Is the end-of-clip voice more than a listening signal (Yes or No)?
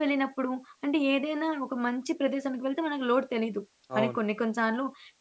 No